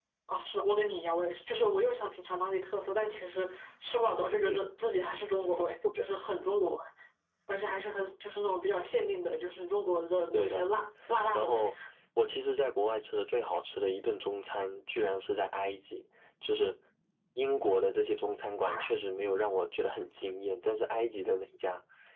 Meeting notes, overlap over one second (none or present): none